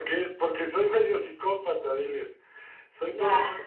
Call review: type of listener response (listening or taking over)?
listening